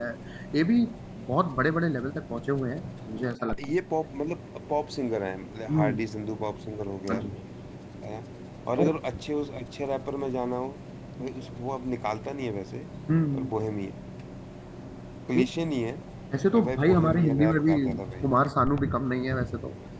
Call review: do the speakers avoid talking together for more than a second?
No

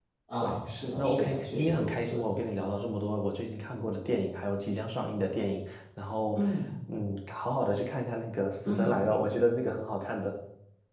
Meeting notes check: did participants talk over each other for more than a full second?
Yes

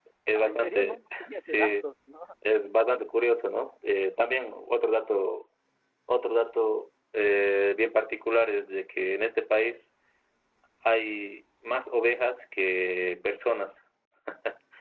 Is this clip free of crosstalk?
No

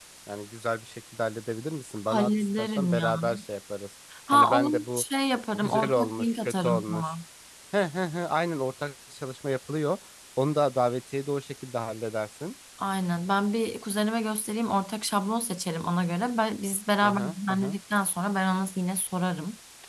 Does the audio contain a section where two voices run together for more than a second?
Yes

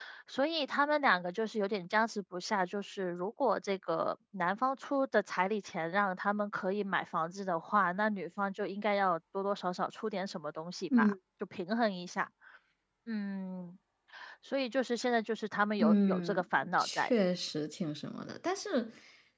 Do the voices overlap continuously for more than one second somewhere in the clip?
Yes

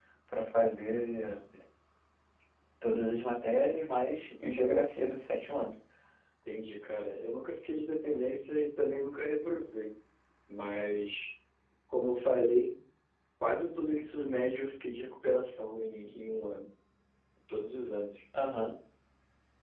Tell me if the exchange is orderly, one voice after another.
Yes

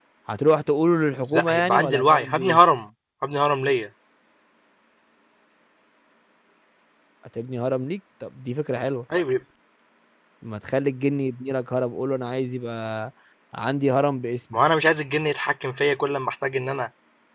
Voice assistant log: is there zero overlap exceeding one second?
No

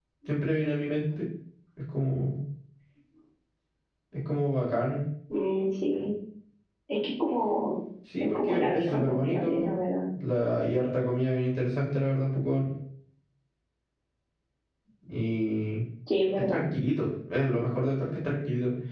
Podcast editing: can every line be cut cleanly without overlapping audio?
No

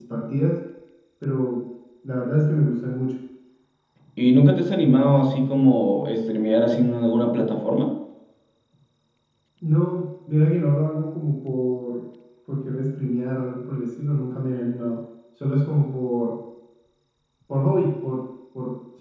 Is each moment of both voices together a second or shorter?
Yes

